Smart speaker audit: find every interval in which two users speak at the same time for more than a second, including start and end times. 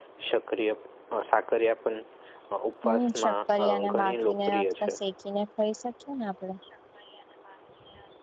2.8-4.9

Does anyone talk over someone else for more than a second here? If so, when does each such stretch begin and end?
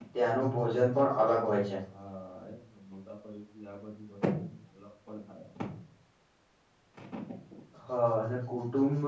none

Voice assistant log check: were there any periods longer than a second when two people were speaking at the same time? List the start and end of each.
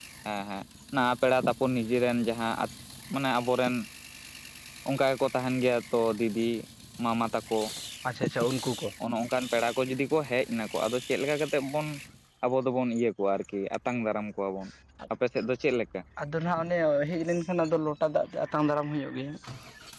none

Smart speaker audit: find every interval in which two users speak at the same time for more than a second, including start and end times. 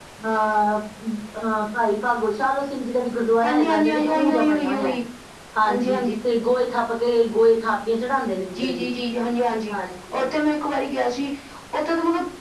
3.4-4.9

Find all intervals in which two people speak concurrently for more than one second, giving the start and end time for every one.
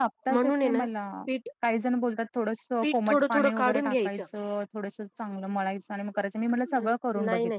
2.8-4.2

